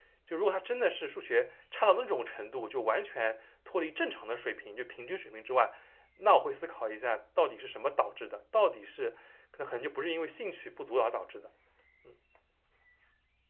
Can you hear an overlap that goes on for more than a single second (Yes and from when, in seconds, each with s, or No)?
No